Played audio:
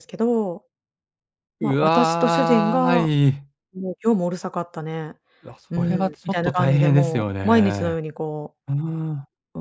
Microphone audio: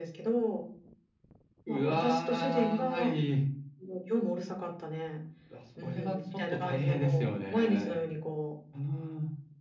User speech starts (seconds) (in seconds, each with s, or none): none